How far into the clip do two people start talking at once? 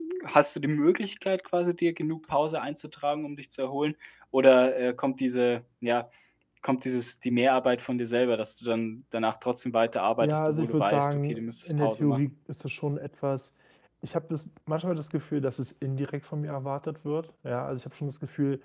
10.2 s

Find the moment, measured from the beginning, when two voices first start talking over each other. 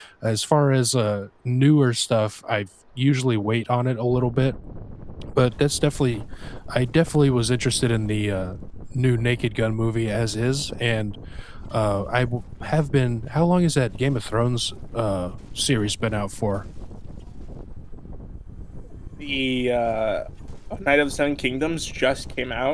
none

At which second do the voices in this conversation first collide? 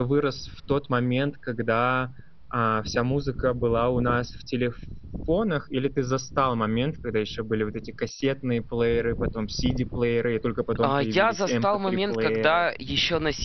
10.8 s

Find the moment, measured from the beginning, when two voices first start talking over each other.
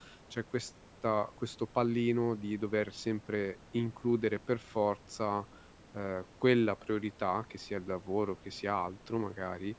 none

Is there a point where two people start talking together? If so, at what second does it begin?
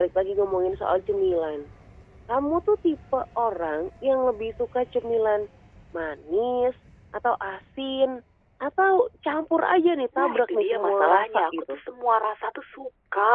10.2 s

